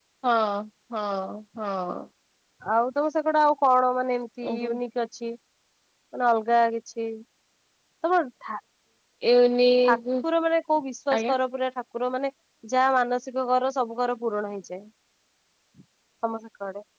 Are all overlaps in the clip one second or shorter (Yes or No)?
Yes